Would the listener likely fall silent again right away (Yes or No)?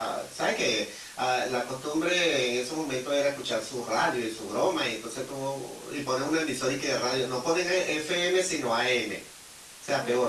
Yes